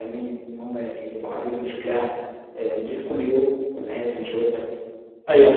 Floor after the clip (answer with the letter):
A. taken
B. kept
A